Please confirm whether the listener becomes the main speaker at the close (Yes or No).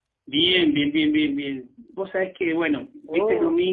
No